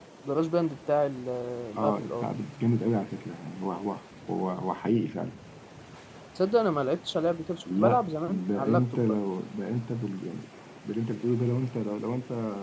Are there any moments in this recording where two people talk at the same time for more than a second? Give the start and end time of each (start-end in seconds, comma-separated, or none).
7.8-9.2